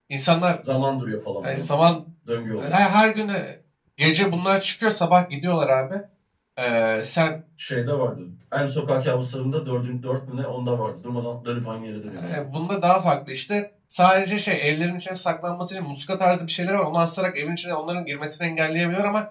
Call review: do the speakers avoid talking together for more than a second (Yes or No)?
Yes